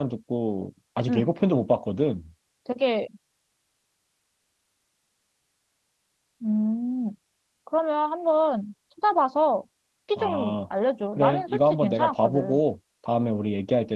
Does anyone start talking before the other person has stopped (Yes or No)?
Yes